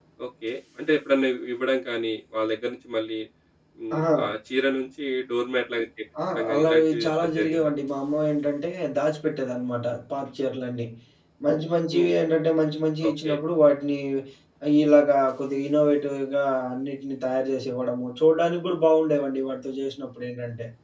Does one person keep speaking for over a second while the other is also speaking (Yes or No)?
Yes